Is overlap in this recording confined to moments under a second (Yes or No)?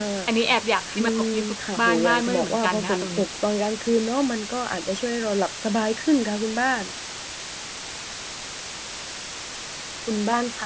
No